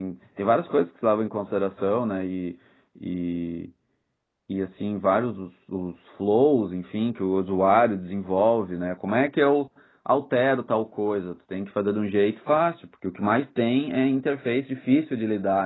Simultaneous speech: No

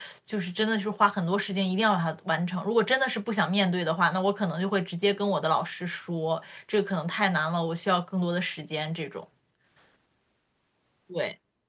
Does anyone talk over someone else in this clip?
No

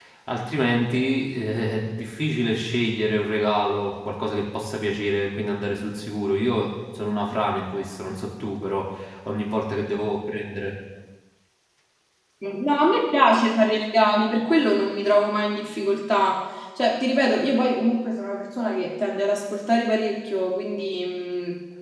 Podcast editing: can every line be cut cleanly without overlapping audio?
Yes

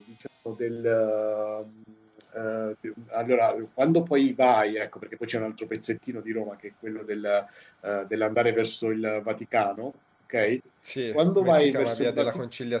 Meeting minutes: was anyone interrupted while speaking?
Yes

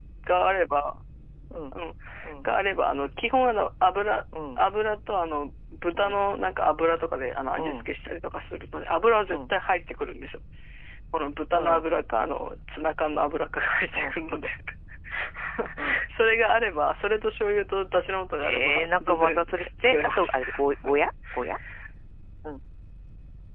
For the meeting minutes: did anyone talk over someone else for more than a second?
Yes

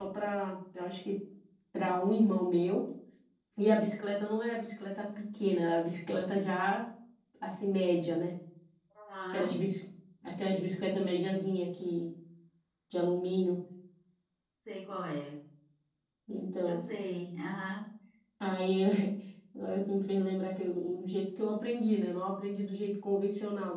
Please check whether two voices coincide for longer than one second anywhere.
No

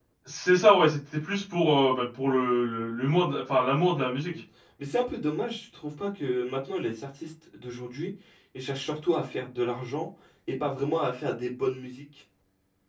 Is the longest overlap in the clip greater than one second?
No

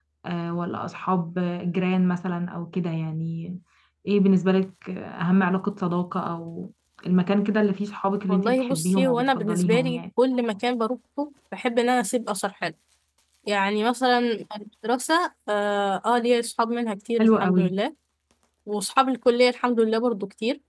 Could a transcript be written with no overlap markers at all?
No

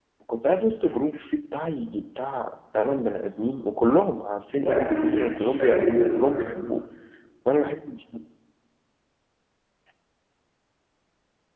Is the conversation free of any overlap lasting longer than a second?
No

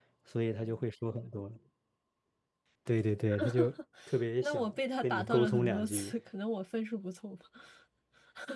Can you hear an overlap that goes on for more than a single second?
Yes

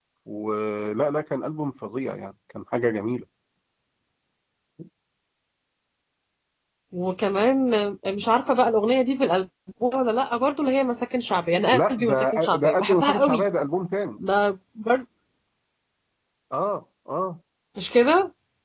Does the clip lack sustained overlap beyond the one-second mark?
No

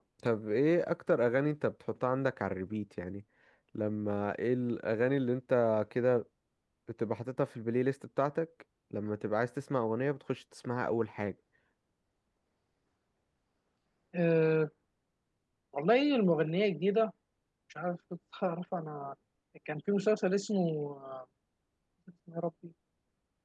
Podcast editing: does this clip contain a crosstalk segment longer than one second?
No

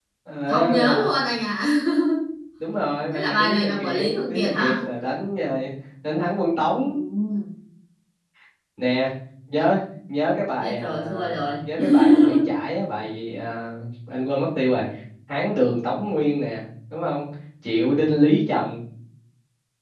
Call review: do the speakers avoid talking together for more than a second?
No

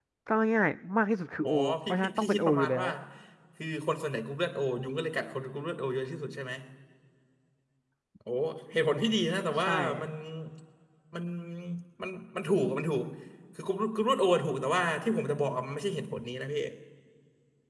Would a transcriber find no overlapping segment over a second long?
No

